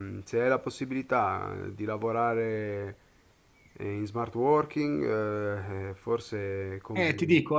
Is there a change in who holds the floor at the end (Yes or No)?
Yes